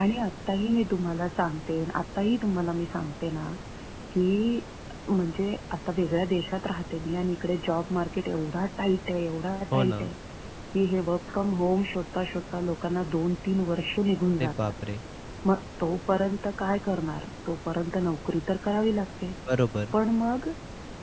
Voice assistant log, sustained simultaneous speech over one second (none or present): none